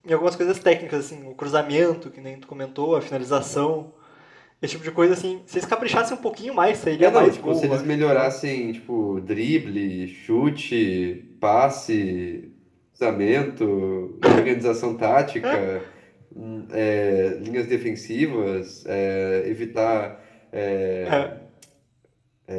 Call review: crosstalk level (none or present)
present